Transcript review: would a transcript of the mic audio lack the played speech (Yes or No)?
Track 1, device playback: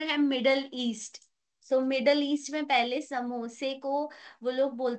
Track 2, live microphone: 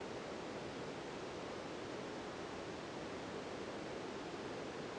Yes